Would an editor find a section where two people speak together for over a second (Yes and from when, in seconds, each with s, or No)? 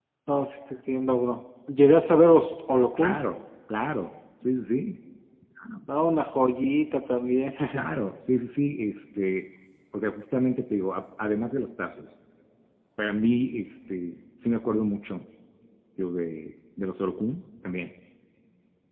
No